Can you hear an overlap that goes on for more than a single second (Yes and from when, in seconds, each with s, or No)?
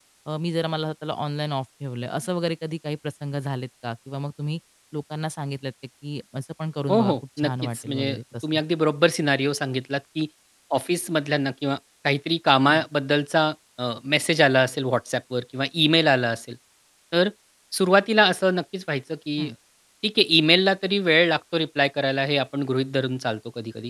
Yes, from 6.9 s